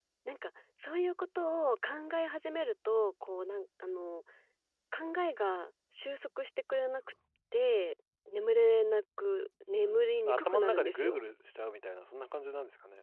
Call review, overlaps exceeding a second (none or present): present